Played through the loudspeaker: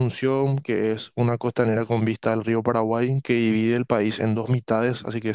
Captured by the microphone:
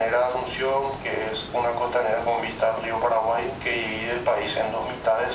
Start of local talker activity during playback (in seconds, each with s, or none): none